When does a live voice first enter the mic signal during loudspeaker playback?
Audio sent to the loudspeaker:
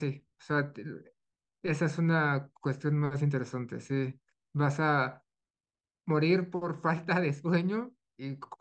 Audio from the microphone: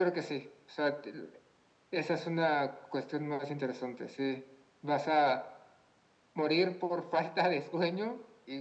none

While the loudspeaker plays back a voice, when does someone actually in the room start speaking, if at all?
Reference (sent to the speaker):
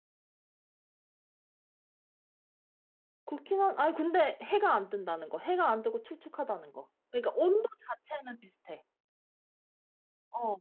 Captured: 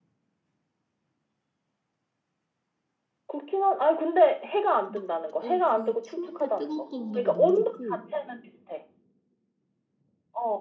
5 s

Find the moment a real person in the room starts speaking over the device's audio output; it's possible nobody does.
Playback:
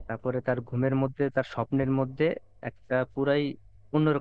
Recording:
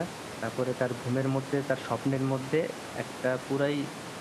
none

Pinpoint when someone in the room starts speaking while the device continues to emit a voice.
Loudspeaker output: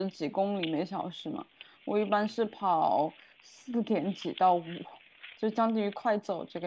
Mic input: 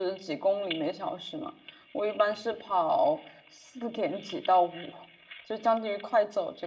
none

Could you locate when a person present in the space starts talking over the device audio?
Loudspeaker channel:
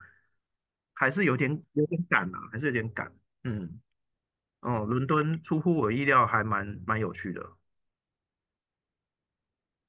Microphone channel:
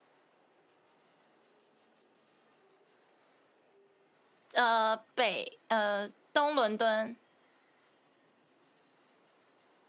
5 s

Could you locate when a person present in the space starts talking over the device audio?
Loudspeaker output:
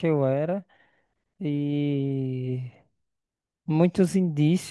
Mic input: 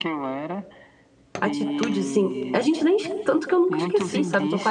1 s

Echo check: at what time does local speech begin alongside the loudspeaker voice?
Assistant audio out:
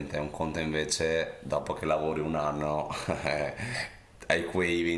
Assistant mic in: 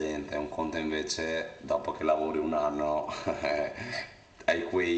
none

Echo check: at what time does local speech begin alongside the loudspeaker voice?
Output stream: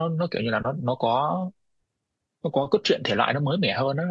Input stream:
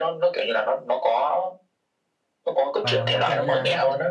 3 s

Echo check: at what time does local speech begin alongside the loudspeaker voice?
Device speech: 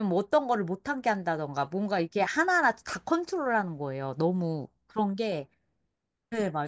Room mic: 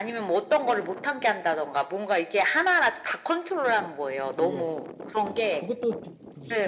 4 s

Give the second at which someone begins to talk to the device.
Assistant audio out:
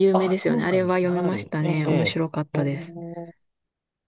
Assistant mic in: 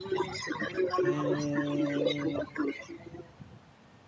1 s

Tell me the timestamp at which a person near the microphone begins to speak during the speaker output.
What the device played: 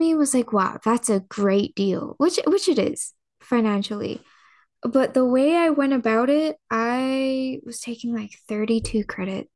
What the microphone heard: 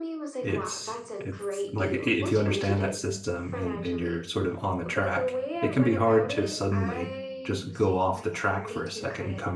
0 s

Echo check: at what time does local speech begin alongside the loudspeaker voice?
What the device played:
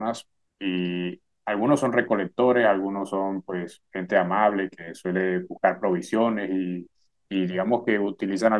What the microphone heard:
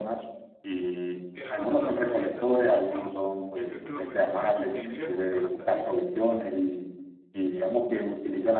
1 s

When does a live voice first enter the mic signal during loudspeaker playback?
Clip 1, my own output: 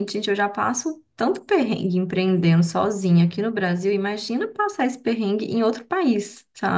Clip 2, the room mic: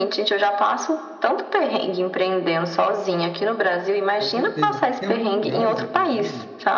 4 s

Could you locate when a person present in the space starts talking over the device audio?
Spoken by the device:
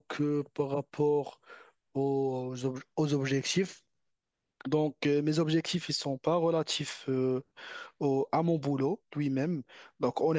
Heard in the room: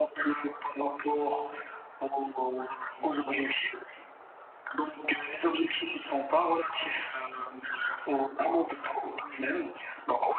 none

